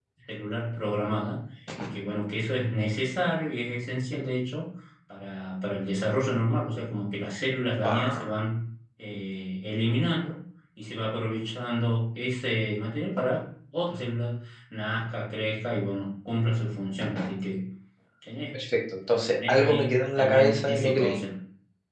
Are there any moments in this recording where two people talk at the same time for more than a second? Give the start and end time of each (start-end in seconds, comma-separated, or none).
19.5-21.2